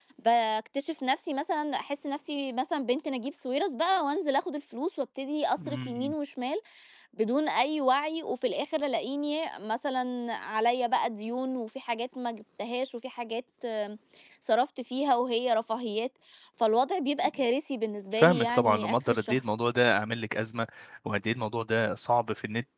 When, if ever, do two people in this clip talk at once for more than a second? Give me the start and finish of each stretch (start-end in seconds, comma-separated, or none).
18.1-19.4